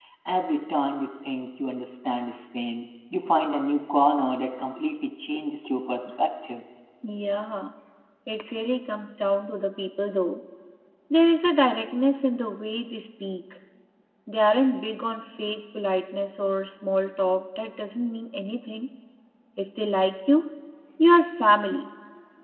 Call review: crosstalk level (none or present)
none